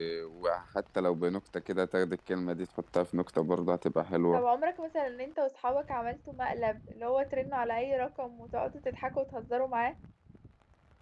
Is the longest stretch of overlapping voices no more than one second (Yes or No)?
Yes